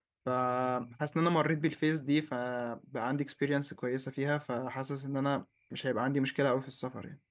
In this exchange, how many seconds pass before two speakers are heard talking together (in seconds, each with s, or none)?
none